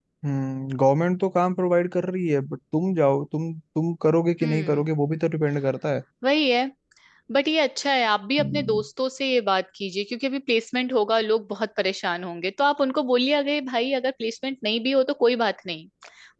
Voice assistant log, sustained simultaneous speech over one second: none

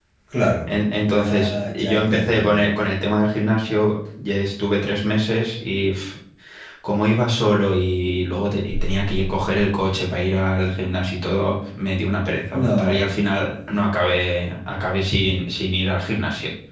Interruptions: present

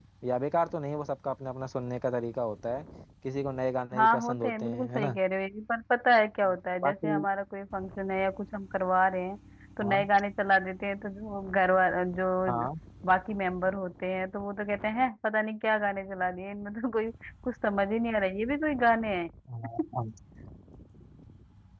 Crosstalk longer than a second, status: present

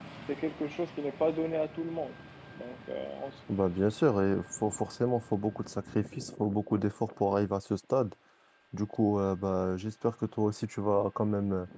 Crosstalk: none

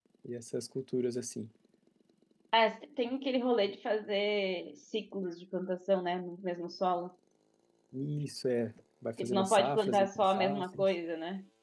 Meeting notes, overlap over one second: present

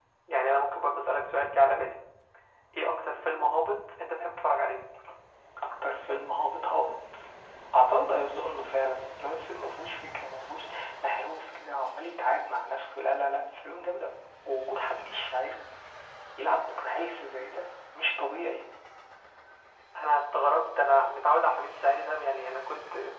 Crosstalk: none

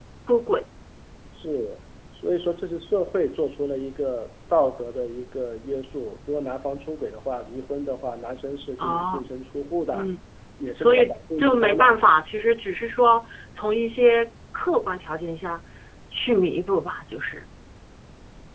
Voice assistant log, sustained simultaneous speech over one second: present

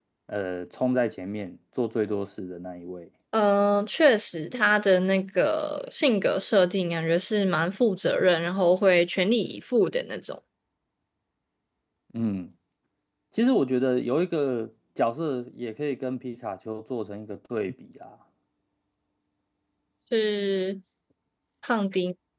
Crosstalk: none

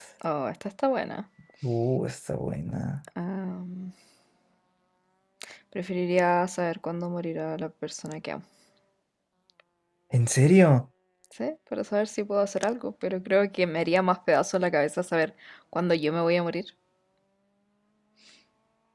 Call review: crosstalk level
none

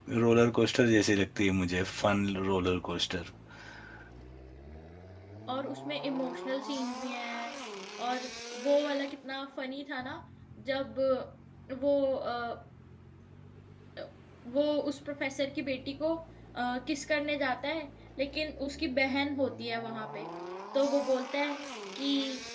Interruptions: none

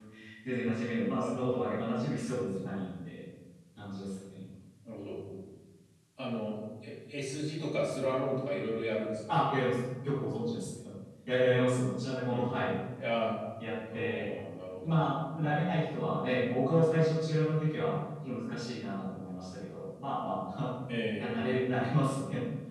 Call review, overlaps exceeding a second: none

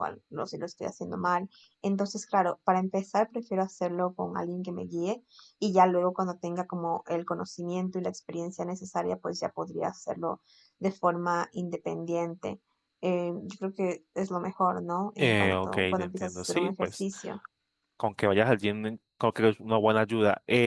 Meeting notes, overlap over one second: present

